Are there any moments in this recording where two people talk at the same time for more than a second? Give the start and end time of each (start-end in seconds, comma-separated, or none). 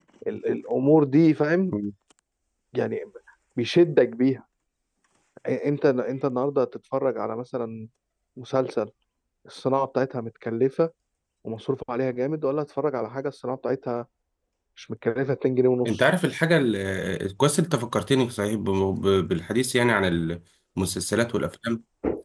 none